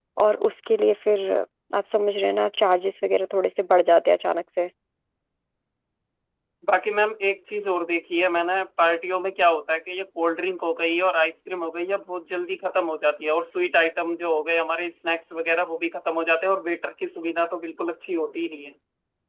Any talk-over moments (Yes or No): No